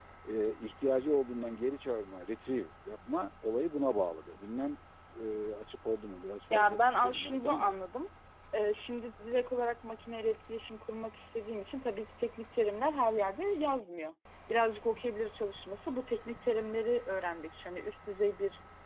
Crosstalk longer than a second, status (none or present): present